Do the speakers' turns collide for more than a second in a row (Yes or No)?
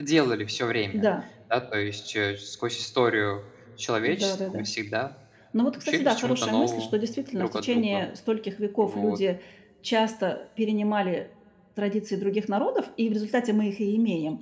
Yes